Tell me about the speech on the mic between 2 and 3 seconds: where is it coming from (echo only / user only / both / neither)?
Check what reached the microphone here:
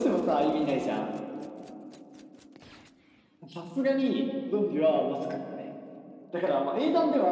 neither